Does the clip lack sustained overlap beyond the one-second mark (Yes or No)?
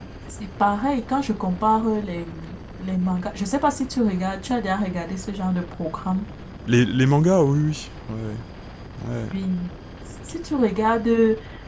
Yes